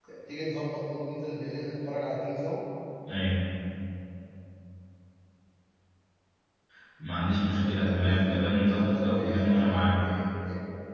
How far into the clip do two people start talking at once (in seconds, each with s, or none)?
7.5 s